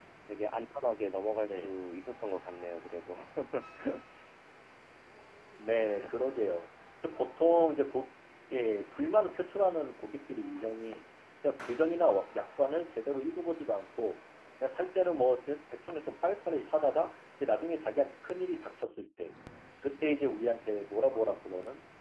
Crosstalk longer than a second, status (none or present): none